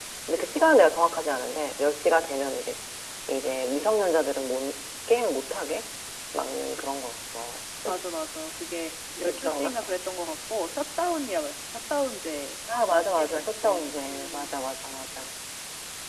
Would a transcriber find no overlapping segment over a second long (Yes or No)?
No